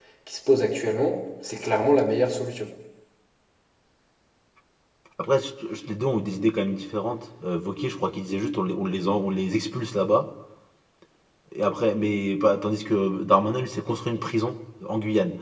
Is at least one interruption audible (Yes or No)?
No